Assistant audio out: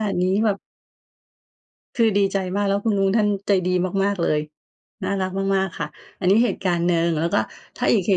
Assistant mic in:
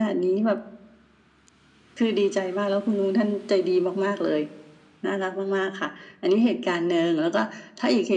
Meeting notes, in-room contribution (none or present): none